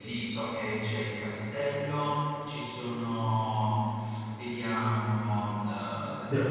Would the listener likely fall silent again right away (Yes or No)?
Yes